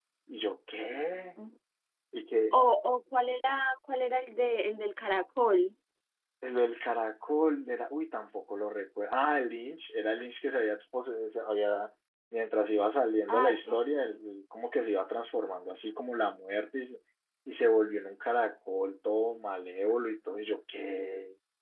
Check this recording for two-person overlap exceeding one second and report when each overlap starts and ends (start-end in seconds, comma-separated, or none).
none